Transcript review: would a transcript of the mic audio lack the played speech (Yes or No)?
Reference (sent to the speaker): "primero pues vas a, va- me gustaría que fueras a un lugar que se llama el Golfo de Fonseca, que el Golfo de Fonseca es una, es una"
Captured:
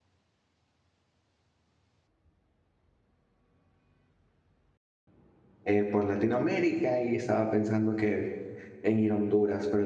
Yes